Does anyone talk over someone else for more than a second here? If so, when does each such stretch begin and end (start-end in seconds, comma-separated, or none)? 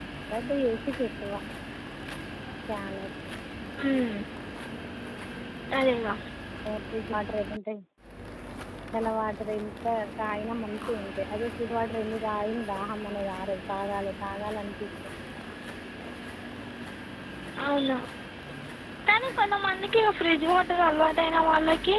none